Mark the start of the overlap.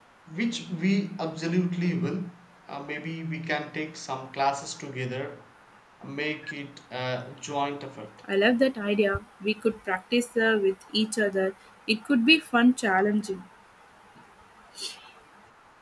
none

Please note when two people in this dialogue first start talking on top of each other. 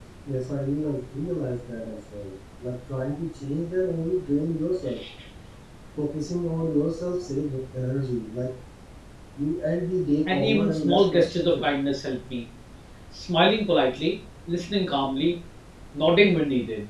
10.3 s

